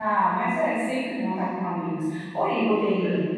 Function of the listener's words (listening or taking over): listening